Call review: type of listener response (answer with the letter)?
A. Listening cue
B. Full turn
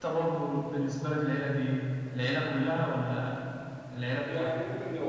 B